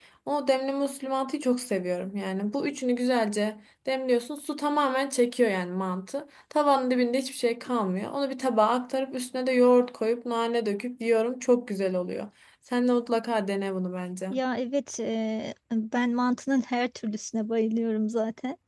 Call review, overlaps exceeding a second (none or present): none